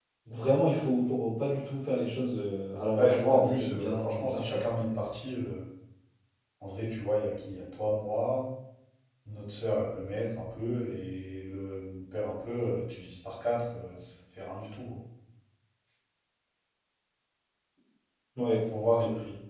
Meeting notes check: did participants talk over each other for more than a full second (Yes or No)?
Yes